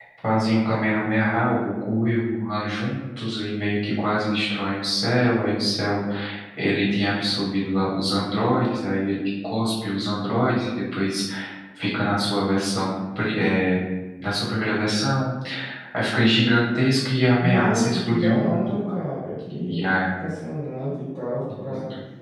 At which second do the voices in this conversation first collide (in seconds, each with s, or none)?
17.4 s